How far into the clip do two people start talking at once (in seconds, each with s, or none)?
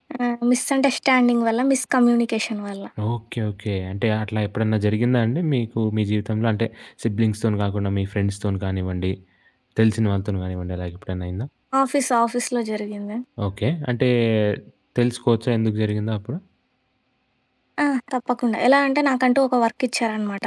none